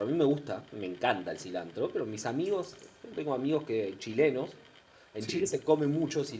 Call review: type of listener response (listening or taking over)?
listening